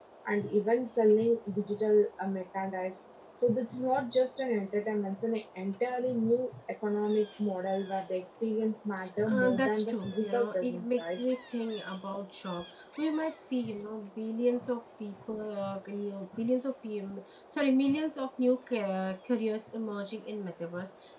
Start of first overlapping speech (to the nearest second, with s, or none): 9 s